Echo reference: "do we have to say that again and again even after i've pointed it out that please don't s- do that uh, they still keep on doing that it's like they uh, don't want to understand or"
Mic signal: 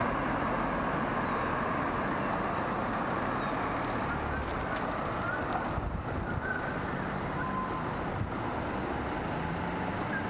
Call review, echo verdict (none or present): none